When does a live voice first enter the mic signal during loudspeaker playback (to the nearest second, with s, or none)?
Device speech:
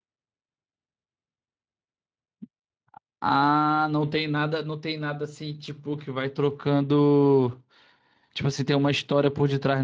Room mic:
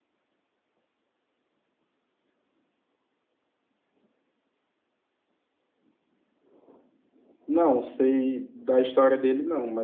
7 s